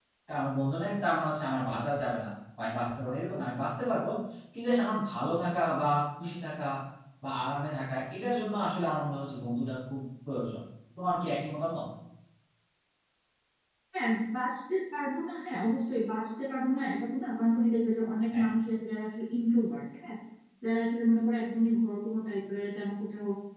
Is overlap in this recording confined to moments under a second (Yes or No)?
Yes